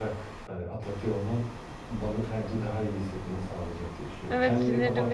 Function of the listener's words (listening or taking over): taking over